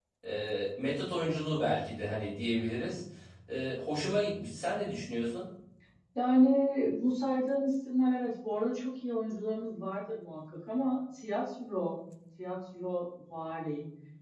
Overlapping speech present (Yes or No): No